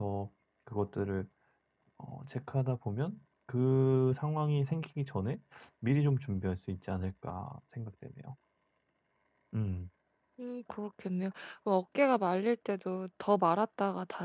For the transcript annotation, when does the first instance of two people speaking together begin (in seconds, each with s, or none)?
none